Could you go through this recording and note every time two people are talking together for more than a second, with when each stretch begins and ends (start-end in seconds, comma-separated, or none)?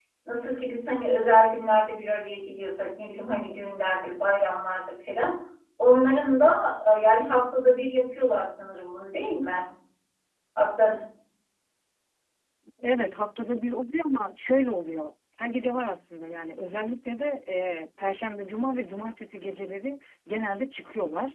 none